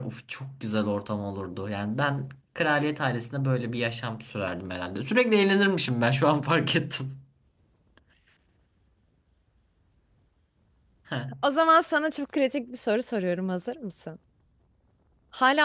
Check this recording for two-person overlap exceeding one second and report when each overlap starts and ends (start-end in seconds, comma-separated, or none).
none